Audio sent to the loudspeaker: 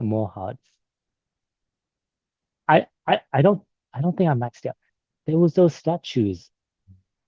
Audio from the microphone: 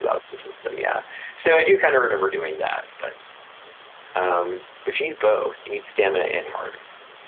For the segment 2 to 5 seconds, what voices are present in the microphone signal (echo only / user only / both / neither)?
user only